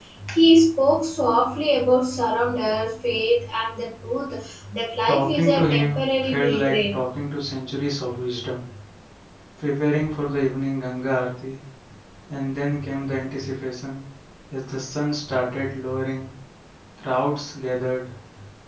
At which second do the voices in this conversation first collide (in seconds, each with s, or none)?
5.1 s